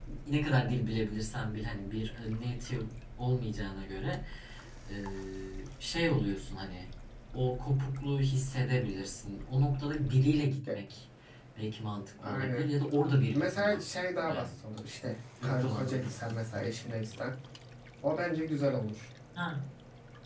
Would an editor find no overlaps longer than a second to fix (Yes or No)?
No